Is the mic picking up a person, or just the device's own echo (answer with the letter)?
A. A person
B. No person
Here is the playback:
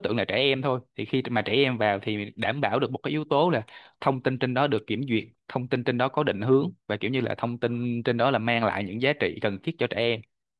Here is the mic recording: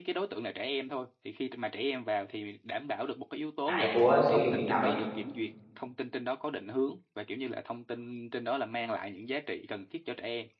A